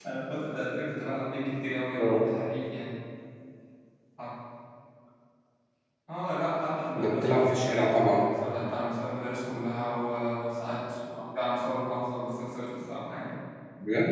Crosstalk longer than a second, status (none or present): present